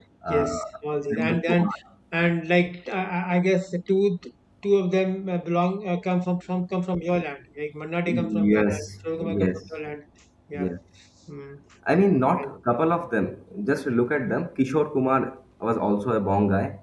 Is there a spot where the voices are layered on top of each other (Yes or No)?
Yes